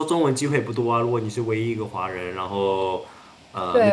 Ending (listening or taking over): taking over